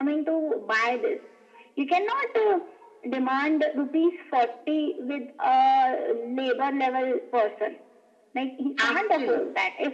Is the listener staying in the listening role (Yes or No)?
Yes